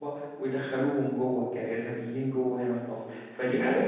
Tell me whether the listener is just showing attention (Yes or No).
No